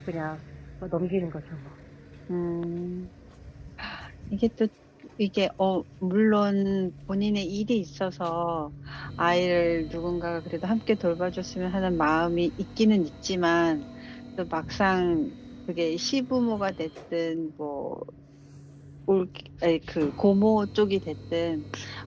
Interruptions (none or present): none